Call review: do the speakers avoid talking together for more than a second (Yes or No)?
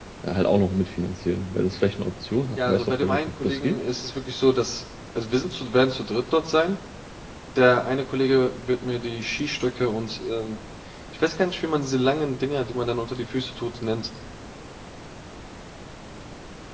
No